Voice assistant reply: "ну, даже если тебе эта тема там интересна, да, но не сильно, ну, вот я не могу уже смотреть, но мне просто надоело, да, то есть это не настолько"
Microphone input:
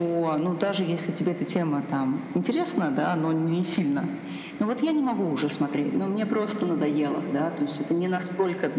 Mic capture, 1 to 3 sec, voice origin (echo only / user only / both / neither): echo only